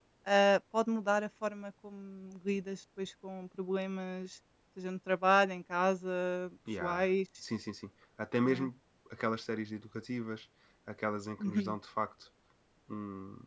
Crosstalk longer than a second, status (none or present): none